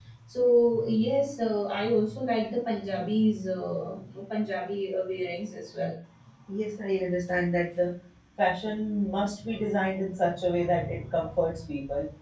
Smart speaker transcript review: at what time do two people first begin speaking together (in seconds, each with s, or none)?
none